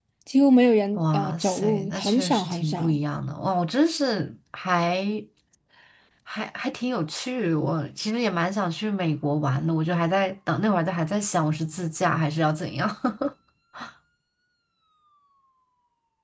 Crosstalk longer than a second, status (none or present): present